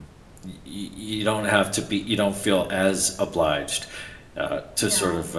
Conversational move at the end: listening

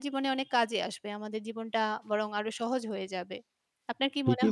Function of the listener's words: taking over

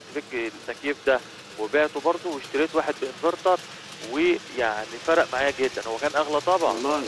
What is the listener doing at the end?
taking over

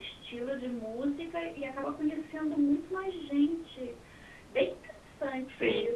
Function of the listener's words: listening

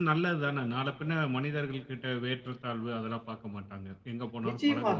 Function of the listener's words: taking over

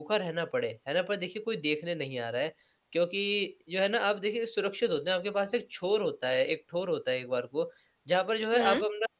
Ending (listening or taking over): listening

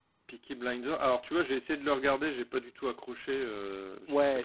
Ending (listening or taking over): taking over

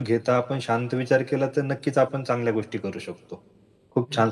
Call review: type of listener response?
listening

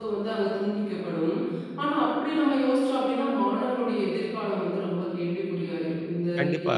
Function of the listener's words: taking over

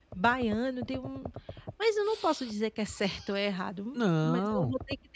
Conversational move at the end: listening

